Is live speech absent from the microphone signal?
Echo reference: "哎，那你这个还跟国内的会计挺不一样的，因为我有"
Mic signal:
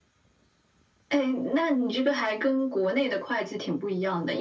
Yes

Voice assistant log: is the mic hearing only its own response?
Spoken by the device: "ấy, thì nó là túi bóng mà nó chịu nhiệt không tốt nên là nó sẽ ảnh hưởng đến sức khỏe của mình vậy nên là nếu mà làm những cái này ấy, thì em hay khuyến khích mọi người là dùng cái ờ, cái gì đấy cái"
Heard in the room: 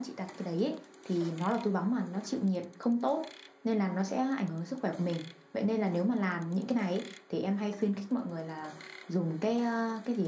Yes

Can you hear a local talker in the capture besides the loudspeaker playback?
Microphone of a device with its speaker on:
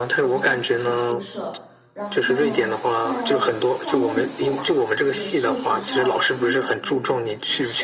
Yes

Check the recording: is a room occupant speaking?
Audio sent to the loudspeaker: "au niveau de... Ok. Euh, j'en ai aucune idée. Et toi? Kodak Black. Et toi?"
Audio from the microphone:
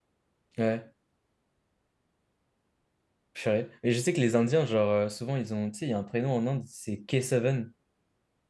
Yes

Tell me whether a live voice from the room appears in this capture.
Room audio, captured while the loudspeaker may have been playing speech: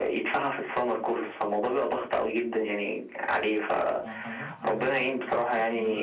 Yes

